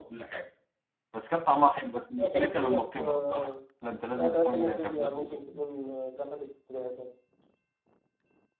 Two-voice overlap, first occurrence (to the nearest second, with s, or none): 2 s